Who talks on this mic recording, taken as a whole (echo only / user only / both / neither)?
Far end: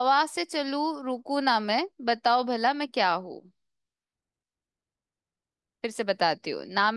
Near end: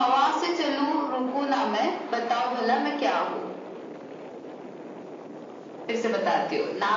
echo only